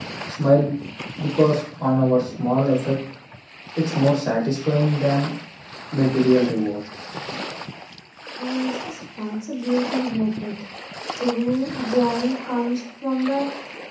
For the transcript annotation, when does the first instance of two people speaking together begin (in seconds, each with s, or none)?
none